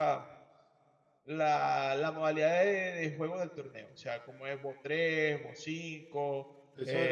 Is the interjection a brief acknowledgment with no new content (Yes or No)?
No